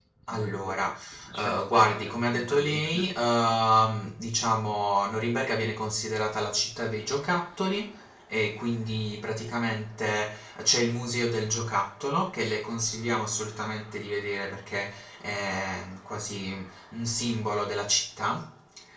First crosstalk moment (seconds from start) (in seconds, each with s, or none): 1.4 s